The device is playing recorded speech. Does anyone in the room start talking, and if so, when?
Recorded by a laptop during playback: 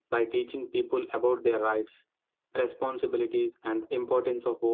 none

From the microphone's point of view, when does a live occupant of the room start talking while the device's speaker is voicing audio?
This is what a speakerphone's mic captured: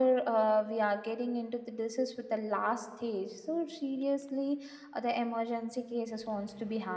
none

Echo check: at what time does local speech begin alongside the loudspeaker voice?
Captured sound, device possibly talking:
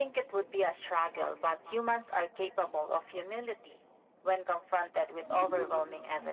5.2 s

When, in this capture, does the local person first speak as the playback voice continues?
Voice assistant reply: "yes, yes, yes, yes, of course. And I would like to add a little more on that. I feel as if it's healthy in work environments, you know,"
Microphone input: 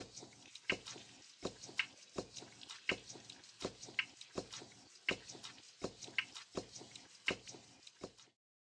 none

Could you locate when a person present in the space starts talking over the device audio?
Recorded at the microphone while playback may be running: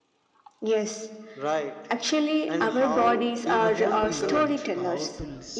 3.6 s

